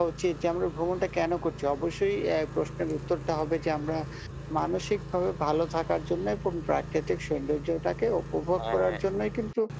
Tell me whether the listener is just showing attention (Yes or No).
Yes